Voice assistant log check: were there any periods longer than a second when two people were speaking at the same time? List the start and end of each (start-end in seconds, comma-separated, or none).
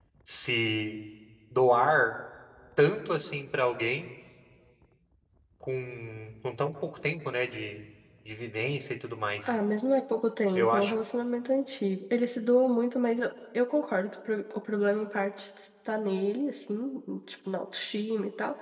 none